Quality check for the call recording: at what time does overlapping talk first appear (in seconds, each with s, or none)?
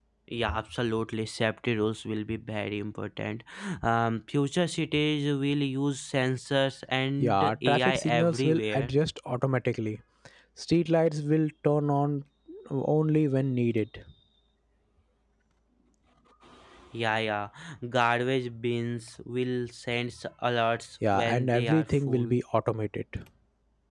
7.2 s